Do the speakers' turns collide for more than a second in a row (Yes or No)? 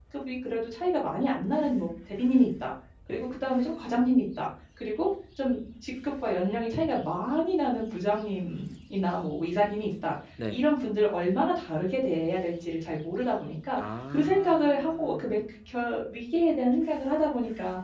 Yes